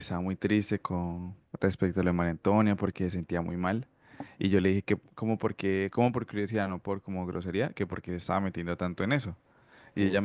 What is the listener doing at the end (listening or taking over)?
listening